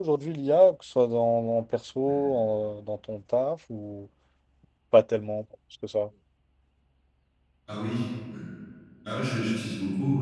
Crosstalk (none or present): none